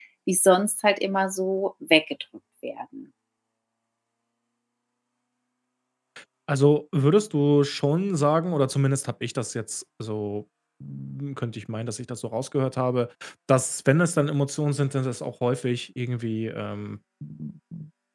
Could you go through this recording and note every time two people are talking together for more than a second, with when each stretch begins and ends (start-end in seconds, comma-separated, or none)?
none